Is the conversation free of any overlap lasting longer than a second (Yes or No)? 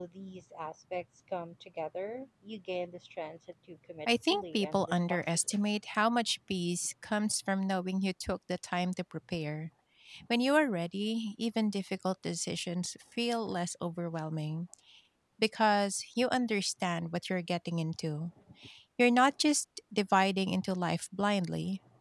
No